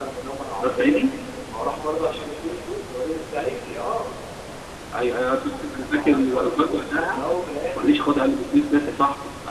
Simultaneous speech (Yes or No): Yes